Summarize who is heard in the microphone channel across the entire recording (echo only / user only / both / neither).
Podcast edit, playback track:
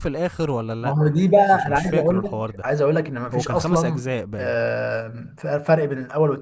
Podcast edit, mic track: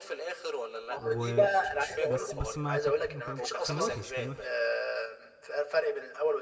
both